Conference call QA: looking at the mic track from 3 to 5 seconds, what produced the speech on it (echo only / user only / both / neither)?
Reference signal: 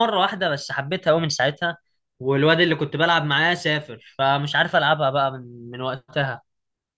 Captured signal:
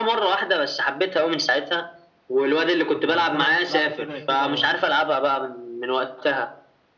both